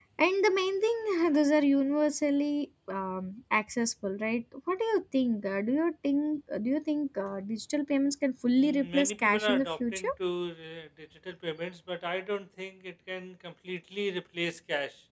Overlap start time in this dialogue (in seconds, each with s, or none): 8.6 s